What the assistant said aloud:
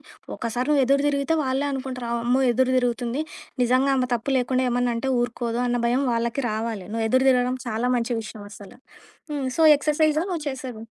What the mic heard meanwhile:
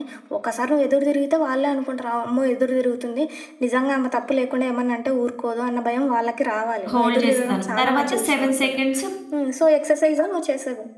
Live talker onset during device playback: 6.9 s

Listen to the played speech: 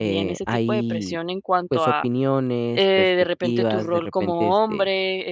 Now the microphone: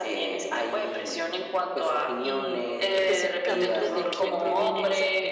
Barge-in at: 2.2 s

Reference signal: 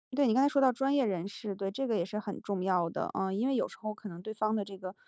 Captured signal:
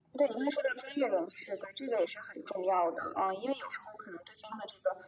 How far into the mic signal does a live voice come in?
none

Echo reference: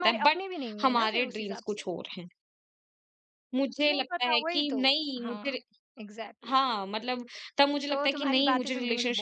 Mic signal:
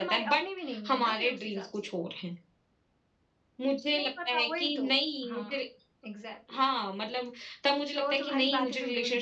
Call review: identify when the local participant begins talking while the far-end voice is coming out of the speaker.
none

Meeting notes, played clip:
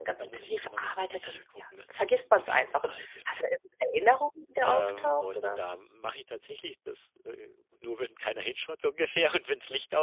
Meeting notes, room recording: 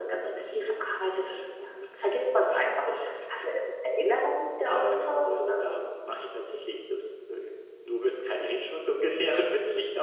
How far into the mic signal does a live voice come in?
none

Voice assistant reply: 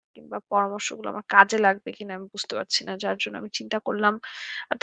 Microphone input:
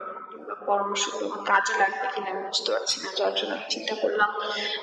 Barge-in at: none

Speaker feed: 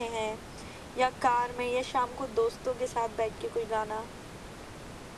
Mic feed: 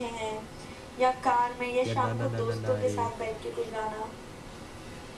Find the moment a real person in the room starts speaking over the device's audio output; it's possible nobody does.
1.8 s

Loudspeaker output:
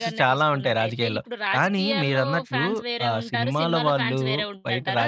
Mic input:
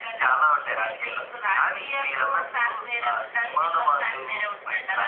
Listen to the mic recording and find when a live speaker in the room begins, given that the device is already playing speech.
none

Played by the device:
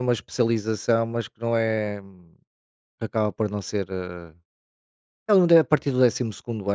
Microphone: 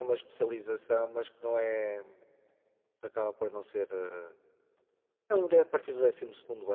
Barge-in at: none

